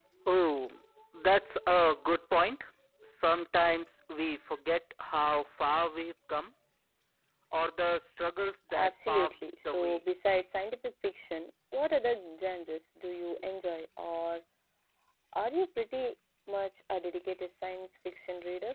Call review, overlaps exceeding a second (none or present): present